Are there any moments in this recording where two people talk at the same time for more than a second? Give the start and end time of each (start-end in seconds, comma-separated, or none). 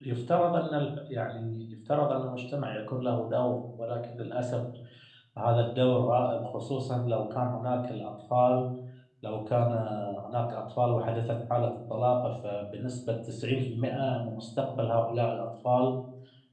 none